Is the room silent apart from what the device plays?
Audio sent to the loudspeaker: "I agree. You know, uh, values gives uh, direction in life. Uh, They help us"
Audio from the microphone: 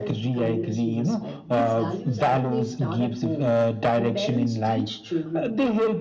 No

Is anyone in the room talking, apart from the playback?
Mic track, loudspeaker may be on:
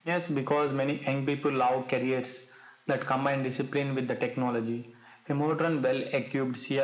No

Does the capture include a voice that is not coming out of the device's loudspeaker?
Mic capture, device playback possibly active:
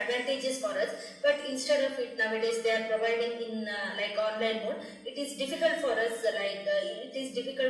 No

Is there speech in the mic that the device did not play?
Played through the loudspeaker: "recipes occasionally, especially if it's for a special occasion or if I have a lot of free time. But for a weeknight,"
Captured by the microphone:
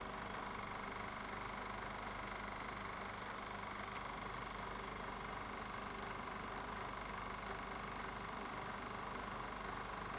No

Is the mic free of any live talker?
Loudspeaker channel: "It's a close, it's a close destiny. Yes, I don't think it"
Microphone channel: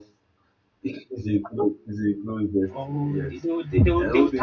No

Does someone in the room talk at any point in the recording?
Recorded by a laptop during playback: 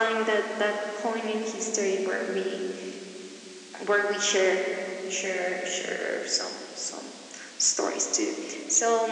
No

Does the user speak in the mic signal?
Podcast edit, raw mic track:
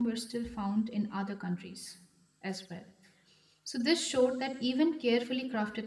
Yes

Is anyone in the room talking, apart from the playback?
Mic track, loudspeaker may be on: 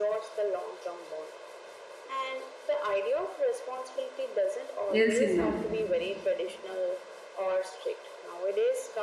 Yes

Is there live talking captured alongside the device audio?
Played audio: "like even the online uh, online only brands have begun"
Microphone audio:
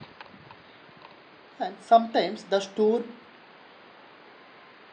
Yes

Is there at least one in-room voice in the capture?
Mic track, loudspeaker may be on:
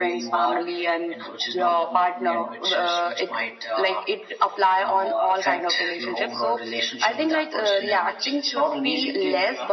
No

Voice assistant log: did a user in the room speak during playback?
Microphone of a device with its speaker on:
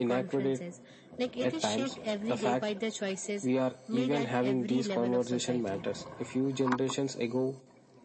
No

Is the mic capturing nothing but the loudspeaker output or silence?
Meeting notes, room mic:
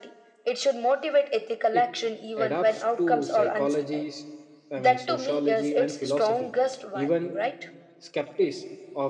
No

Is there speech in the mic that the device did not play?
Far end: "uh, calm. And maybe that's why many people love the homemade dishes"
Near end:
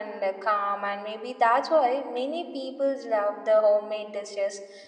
No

